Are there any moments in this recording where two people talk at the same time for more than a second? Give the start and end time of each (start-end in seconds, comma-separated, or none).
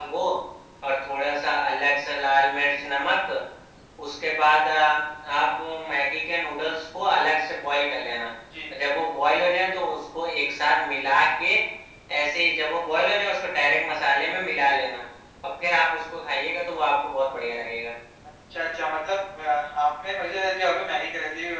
none